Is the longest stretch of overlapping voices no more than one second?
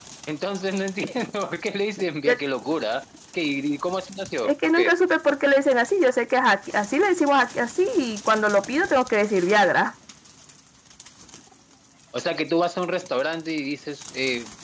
Yes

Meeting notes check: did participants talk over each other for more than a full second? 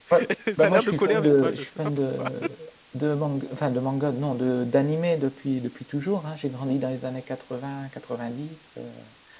Yes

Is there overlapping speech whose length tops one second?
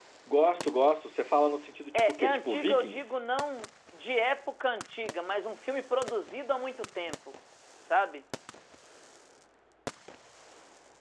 Yes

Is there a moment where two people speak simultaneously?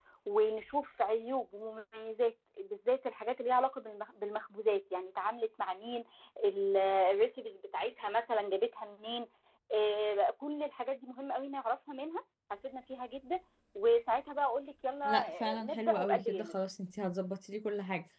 Yes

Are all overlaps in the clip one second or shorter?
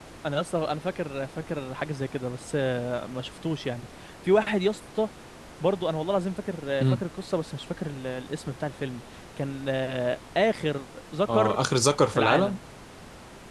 Yes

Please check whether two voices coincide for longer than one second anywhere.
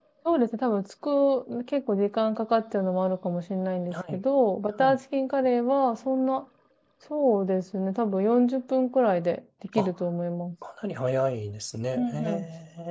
No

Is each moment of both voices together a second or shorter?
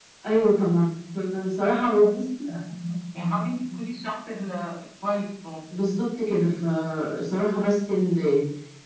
Yes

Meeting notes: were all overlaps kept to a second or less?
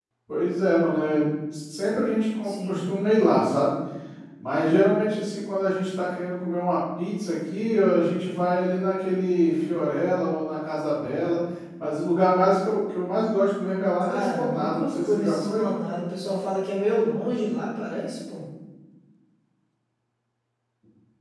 No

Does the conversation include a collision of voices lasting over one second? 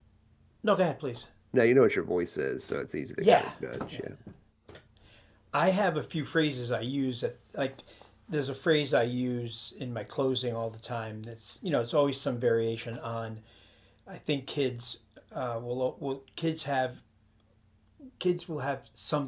No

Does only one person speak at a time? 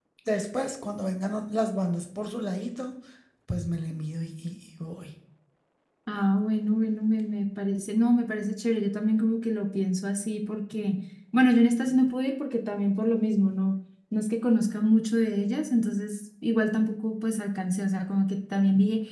Yes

